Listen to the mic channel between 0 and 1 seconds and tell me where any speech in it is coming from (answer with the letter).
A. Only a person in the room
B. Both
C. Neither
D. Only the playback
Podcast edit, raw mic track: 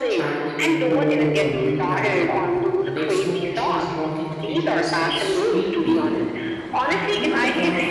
B